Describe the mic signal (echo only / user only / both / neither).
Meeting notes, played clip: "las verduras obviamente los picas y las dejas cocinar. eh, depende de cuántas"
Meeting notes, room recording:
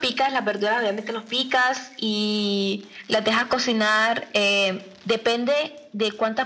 echo only